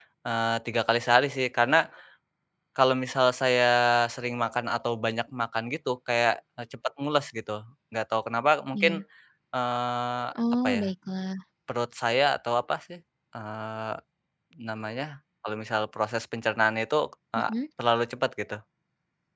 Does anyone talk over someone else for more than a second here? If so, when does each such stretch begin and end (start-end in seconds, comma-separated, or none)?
none